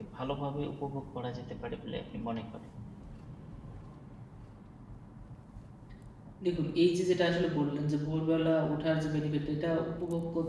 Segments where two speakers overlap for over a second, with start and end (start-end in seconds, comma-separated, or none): none